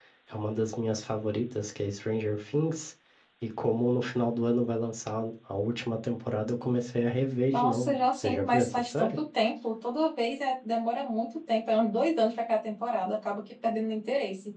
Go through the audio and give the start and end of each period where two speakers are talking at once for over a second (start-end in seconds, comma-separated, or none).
7.5-9.2